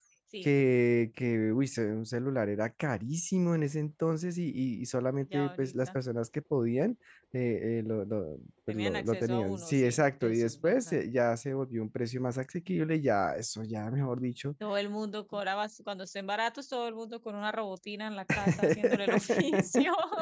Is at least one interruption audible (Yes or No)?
Yes